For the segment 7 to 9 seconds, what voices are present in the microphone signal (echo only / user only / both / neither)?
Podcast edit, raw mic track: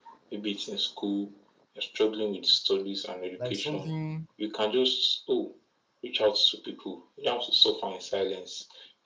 echo only